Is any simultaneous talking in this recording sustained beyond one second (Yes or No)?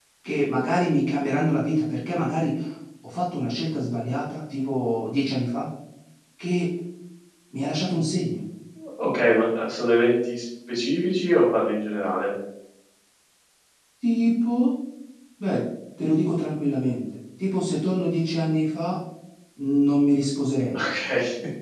No